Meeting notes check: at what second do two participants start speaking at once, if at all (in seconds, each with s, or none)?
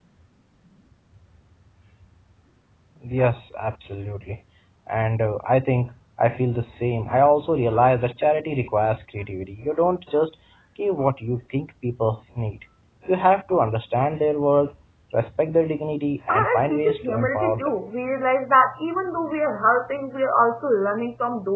16.3 s